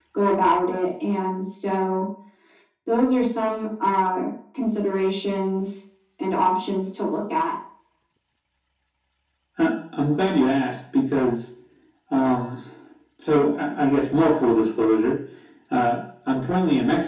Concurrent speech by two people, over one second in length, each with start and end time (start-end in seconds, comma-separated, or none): none